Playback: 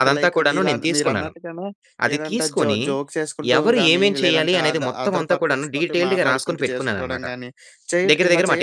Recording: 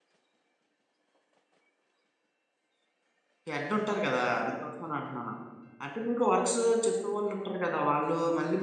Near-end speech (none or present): present